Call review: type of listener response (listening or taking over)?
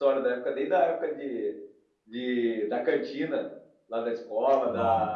listening